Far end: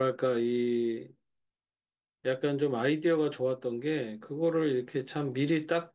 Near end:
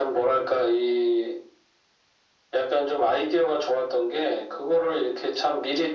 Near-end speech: none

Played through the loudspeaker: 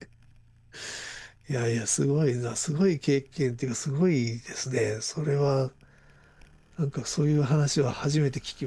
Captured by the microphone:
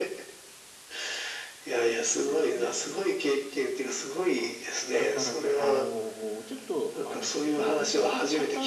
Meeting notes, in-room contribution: present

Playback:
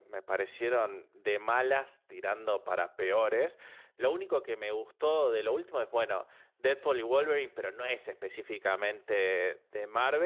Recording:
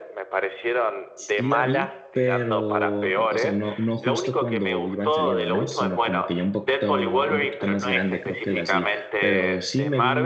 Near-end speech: present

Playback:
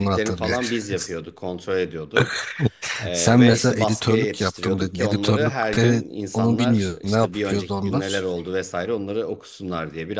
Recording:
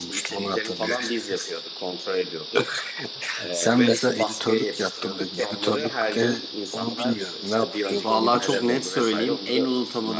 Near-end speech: present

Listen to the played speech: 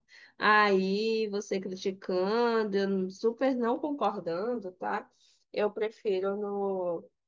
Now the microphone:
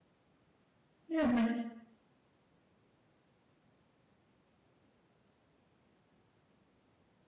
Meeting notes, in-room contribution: present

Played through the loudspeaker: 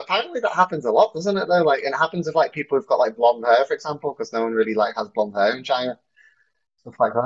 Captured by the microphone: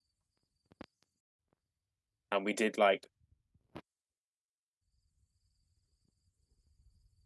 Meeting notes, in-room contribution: present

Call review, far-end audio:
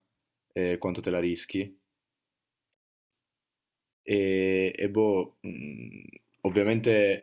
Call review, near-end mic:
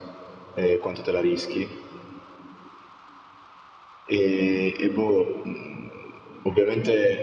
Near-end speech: none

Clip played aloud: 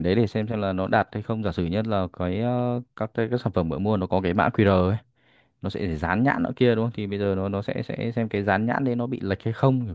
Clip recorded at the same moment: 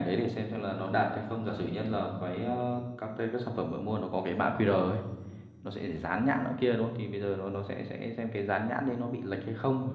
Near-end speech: none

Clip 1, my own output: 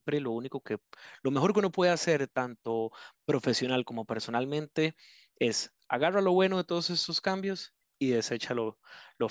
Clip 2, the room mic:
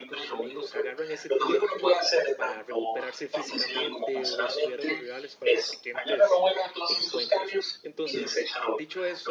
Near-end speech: present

